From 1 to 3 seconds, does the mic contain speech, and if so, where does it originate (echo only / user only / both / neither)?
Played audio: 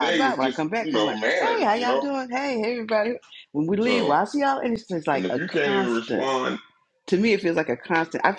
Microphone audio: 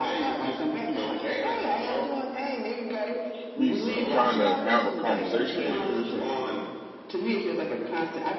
echo only